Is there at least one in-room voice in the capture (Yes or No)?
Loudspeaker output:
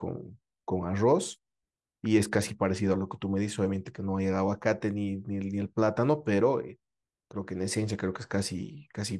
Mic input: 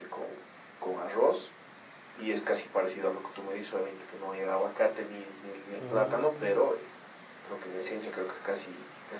Yes